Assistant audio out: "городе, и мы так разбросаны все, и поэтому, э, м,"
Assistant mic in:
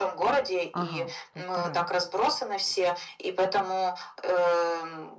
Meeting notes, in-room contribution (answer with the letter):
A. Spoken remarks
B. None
A